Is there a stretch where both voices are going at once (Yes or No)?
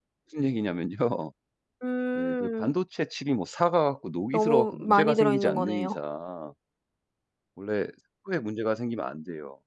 Yes